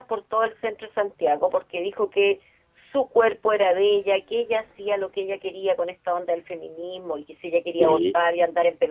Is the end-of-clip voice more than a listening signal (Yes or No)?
No